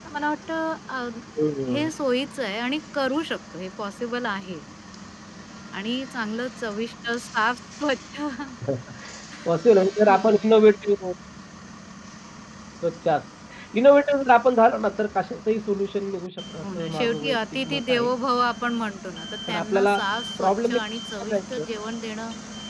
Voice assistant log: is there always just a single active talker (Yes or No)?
No